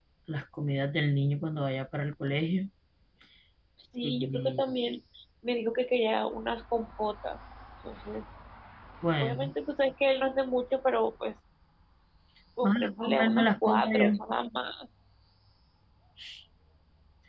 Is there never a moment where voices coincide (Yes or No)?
No